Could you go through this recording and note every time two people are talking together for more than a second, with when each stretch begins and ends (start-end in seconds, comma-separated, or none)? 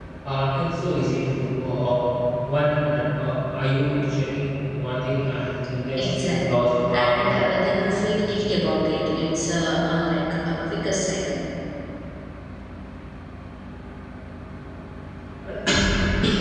6.0-7.4